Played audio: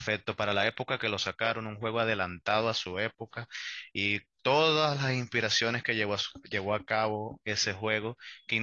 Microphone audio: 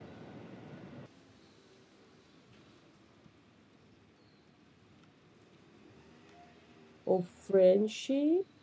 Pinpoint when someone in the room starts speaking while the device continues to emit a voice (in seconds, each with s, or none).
7.0 s